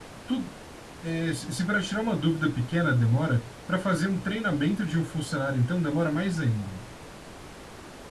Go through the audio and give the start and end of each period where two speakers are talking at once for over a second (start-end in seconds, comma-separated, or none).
none